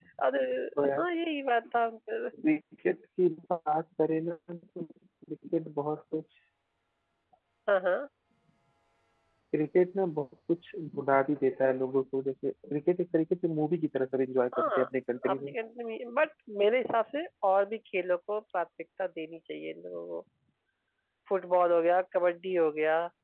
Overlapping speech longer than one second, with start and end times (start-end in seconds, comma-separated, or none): none